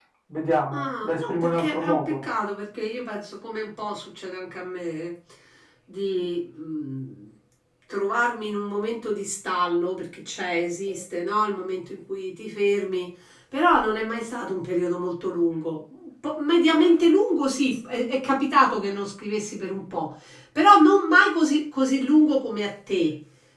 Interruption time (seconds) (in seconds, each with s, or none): 0.7 s